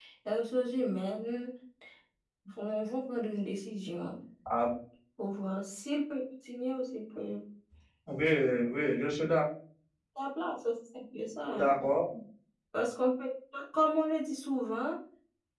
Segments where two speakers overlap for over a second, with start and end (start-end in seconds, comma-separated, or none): none